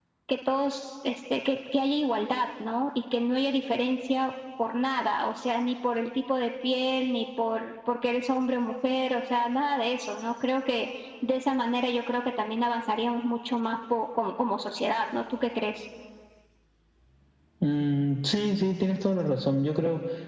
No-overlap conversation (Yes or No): Yes